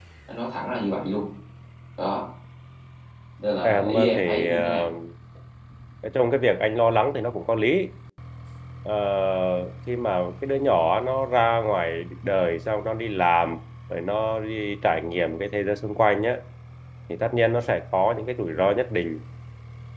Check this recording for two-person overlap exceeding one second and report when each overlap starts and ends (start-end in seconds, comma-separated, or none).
3.6-4.9